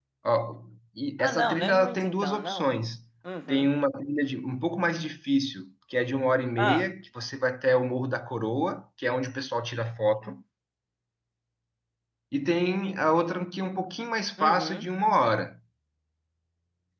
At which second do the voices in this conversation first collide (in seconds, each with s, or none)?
1.2 s